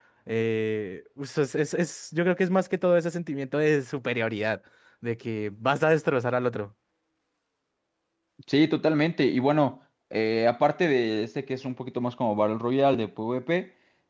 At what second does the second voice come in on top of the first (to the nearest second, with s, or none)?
none